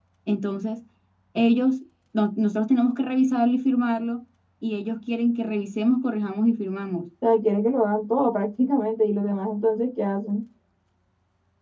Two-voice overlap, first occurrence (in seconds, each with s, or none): none